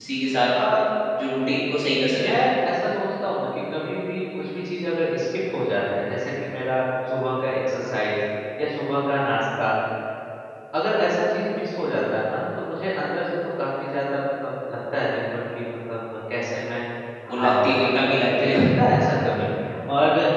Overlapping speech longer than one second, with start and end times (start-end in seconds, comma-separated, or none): 17.4-18.6